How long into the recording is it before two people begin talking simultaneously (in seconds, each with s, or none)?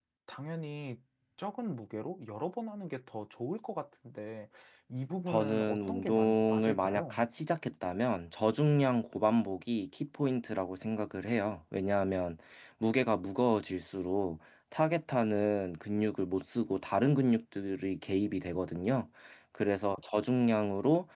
5.3 s